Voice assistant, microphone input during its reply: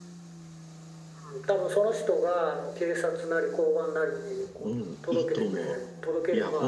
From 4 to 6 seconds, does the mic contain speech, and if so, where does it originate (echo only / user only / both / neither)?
both